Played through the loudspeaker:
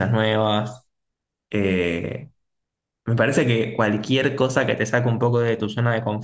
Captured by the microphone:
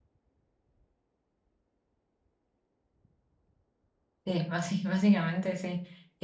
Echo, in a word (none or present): none